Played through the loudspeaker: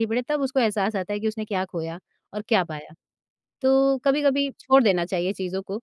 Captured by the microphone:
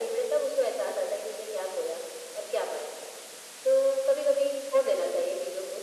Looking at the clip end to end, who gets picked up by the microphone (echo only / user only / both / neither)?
echo only